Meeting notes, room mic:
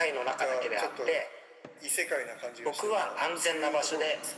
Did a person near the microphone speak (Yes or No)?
No